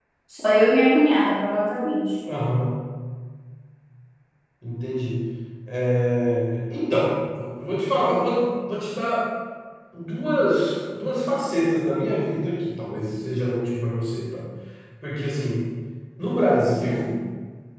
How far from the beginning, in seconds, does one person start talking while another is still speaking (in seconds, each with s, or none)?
none